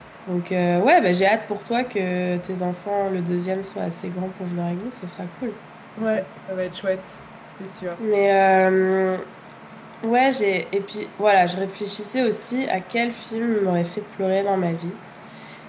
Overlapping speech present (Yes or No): No